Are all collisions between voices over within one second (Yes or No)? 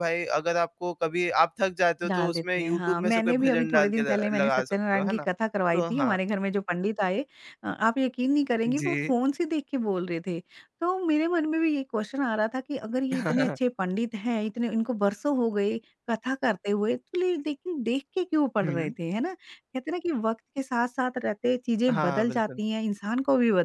No